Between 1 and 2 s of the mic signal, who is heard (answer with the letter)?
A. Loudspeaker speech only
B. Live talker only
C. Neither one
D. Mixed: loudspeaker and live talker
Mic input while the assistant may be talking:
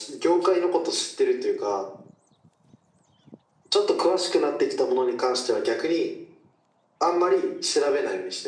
A